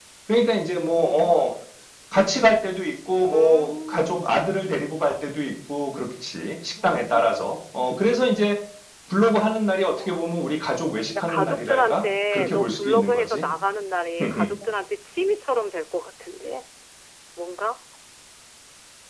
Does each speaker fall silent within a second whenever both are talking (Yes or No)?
No